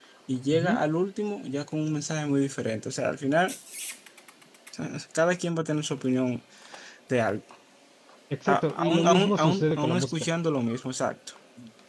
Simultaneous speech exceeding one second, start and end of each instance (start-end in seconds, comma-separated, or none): 8.5-10.1